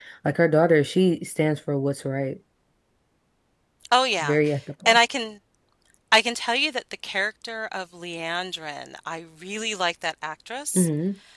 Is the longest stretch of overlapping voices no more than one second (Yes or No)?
Yes